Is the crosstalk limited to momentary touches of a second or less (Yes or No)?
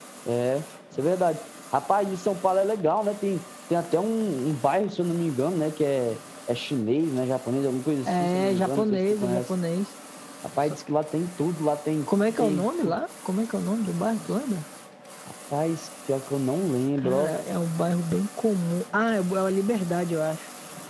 No